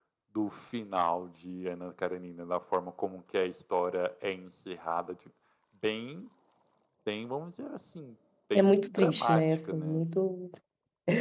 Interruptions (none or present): present